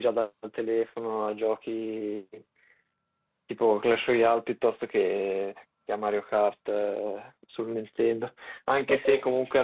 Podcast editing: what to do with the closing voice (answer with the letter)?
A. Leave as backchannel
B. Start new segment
A